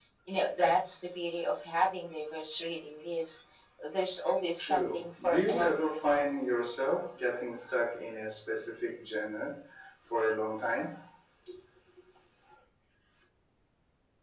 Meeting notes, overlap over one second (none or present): present